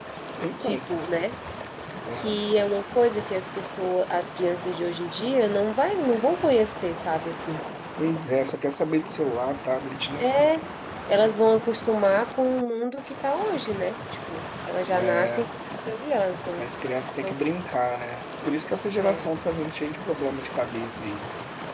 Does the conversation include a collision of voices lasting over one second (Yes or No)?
No